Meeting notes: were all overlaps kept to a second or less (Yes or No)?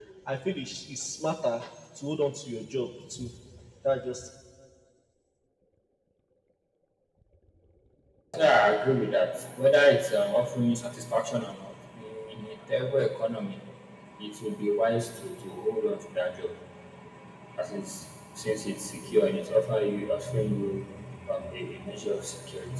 Yes